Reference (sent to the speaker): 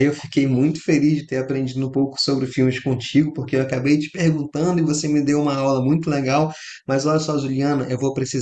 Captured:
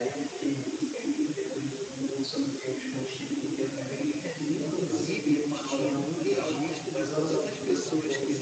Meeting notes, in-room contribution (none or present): present